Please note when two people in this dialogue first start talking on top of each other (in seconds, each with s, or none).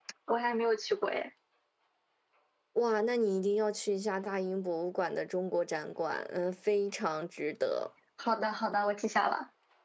none